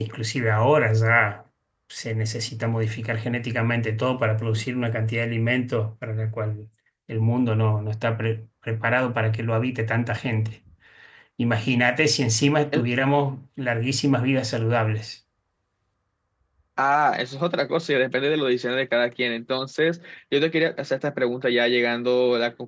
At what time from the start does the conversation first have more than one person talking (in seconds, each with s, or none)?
none